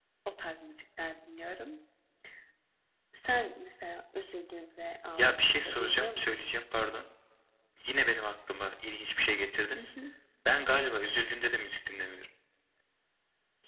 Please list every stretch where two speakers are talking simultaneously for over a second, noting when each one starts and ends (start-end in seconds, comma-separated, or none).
5.2-6.4